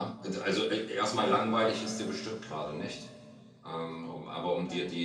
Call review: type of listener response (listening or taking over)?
listening